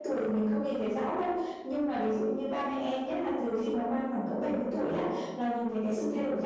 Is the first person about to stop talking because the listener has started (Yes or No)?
No